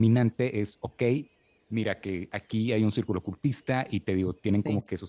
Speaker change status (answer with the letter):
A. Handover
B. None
B